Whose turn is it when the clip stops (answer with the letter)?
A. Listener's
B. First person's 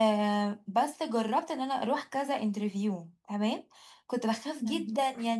B